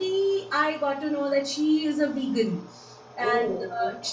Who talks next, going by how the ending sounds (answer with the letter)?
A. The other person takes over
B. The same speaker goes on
B